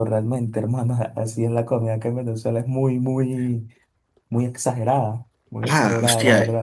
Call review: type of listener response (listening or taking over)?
taking over